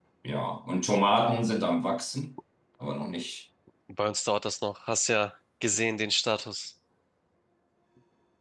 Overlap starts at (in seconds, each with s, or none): none